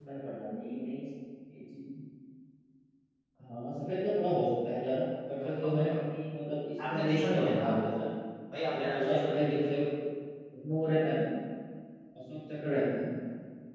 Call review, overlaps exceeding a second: present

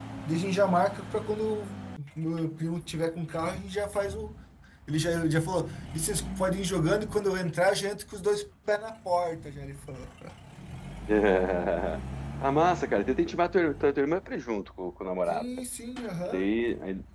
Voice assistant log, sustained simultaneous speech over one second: none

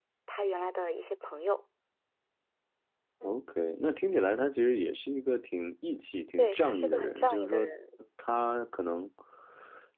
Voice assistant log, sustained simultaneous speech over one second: present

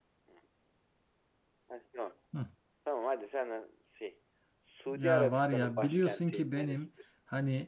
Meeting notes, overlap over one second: present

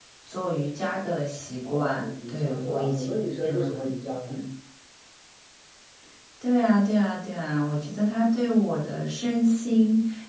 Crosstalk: present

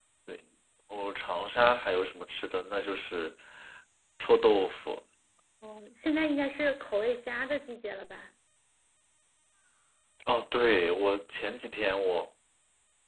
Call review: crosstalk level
none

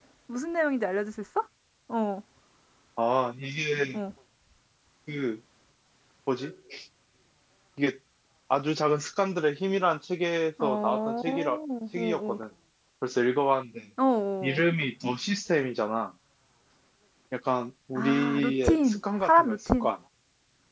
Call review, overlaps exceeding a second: present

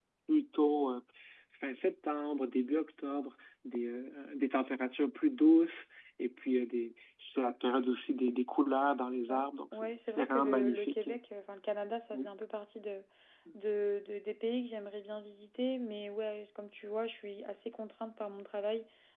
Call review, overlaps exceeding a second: present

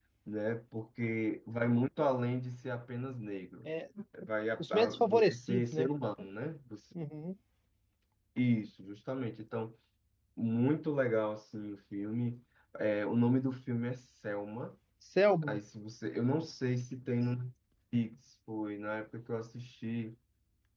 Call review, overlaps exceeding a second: present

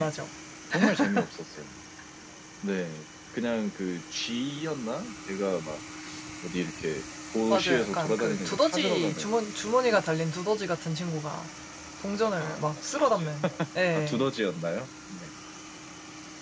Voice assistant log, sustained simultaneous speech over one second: present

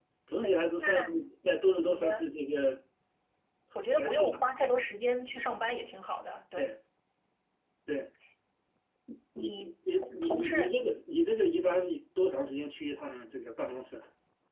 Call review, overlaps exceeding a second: present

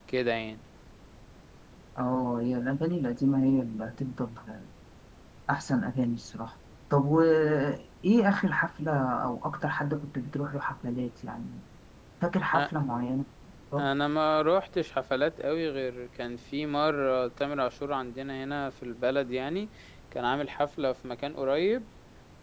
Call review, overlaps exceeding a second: none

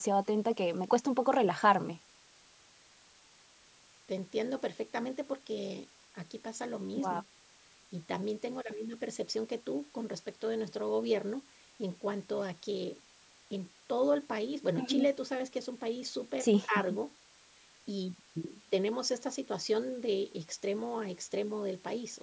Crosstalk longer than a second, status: none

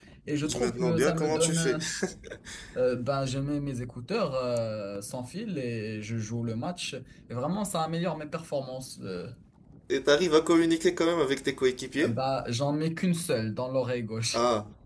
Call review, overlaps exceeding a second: present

